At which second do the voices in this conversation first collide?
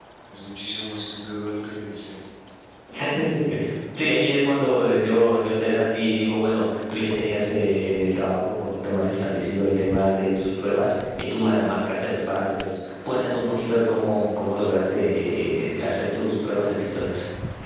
none

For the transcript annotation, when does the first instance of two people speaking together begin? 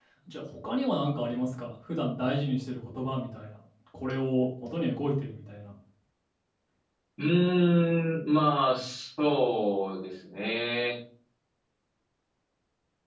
none

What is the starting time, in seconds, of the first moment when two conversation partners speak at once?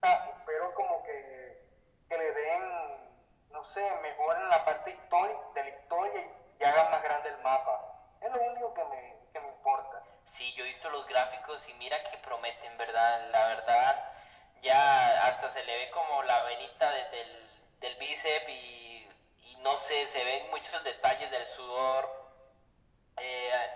none

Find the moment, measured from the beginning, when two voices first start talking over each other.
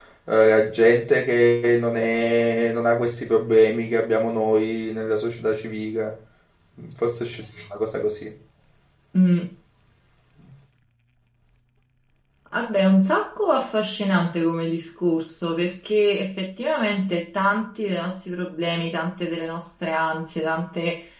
none

